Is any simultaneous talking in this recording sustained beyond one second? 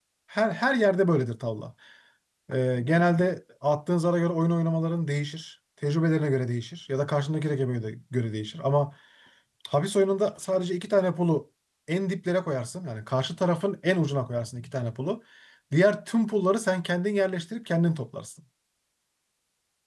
No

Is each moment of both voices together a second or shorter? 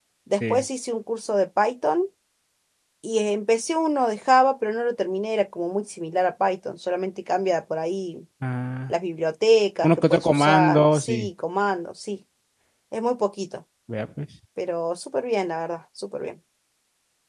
No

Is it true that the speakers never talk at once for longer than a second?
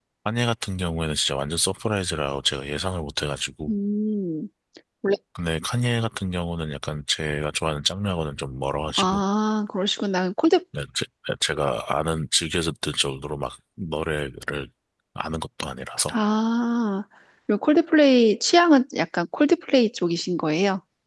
Yes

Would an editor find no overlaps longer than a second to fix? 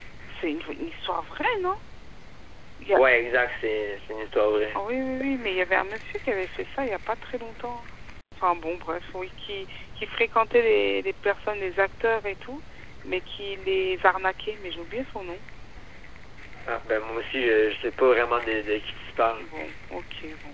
Yes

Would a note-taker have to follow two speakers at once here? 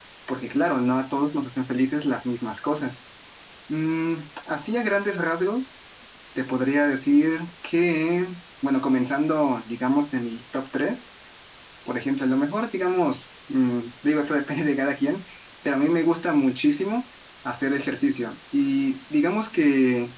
No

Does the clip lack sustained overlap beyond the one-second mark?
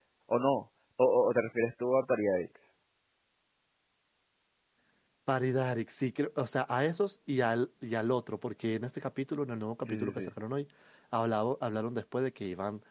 Yes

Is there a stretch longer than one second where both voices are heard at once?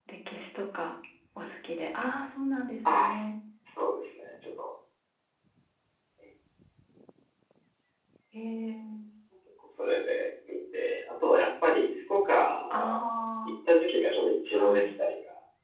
No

